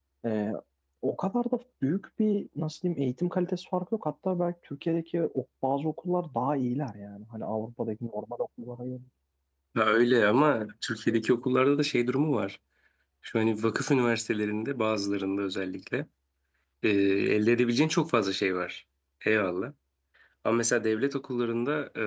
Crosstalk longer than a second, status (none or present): none